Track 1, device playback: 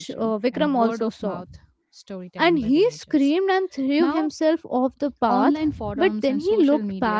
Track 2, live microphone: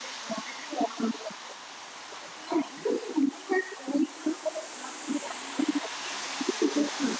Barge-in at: none

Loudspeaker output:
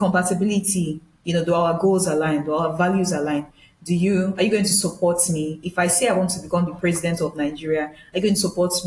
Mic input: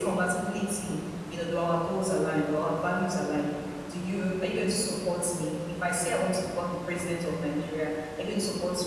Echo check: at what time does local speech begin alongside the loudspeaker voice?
none

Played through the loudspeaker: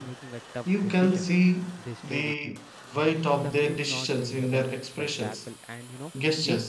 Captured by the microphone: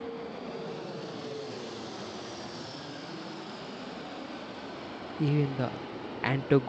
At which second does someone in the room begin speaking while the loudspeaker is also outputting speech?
5 s

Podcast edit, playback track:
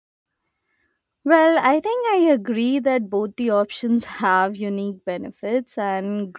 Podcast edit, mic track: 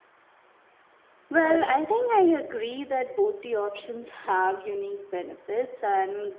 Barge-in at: 1 s

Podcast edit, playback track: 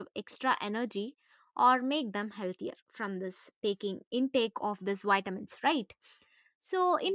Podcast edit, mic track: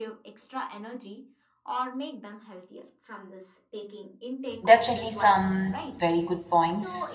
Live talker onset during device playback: 5 s

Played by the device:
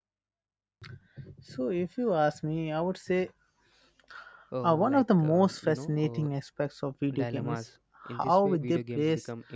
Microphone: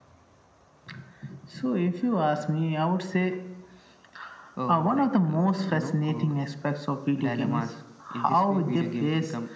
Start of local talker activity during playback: none

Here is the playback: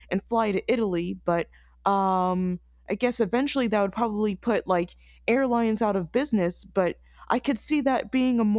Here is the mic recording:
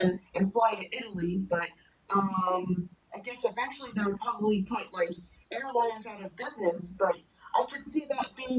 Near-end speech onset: none

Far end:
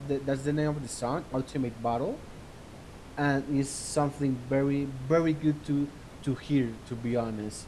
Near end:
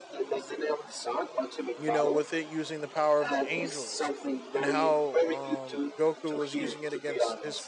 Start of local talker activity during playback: 2 s

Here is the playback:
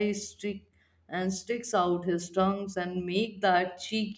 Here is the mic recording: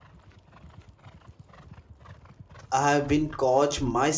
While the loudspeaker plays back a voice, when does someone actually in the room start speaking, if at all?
3 s

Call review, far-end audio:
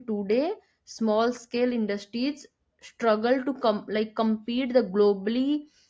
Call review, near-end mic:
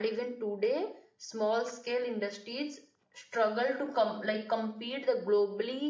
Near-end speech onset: none

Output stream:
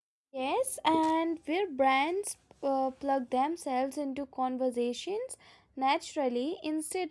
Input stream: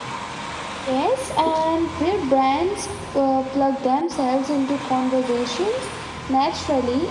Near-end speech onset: none

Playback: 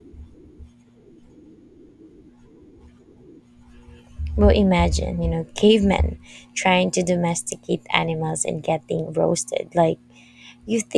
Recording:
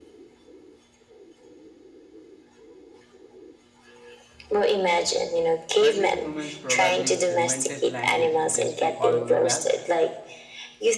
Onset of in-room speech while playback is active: 6 s

